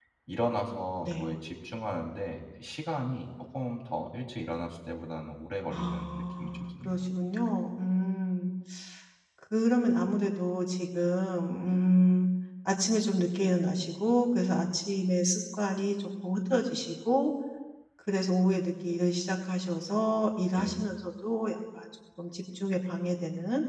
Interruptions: present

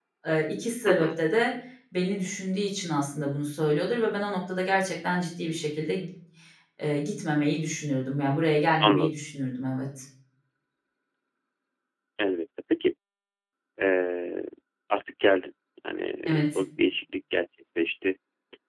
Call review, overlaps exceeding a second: none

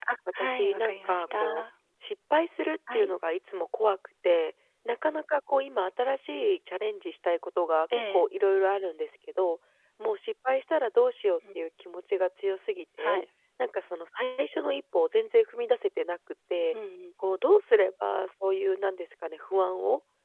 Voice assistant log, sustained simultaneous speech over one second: present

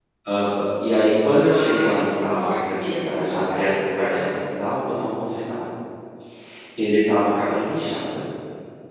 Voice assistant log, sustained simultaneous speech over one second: present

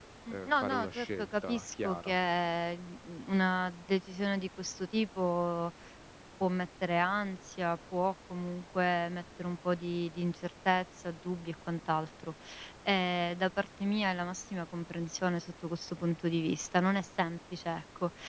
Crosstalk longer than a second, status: present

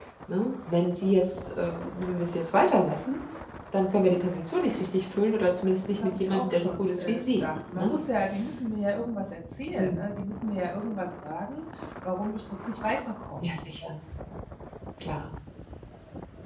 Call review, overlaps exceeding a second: present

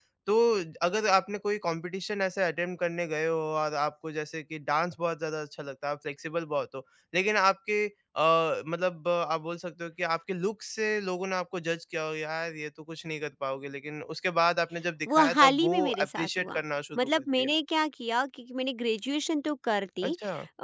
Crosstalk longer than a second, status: present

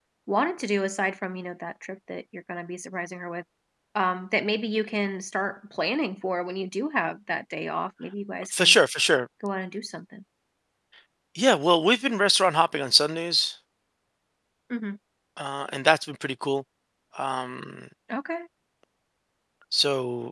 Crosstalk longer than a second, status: none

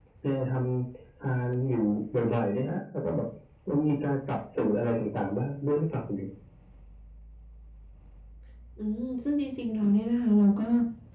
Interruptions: none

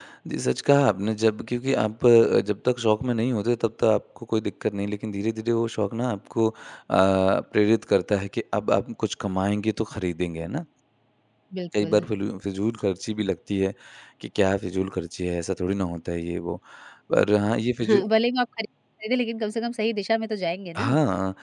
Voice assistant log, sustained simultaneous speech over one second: none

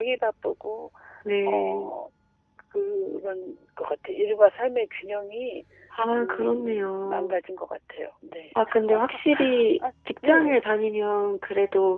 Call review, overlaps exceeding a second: present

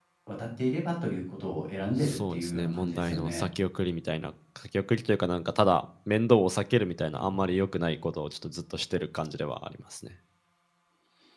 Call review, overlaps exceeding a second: present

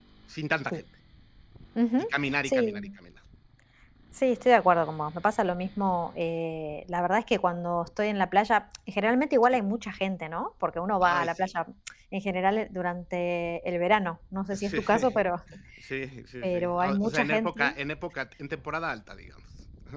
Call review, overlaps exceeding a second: present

